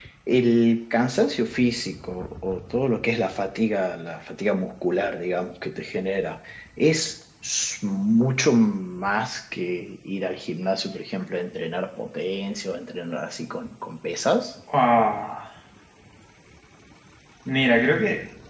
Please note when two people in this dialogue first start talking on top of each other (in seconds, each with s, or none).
none